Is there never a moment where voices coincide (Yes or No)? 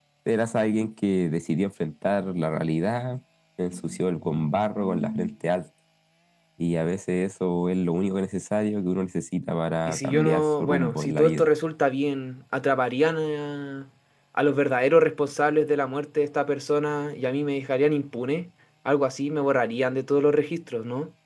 No